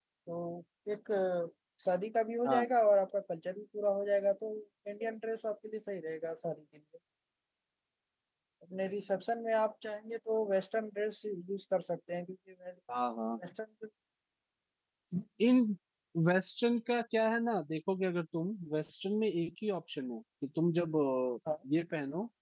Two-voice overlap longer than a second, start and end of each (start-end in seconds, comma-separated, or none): none